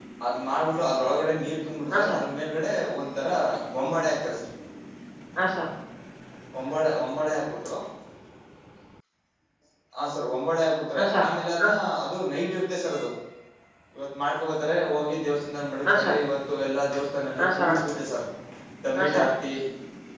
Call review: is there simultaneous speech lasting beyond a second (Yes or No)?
No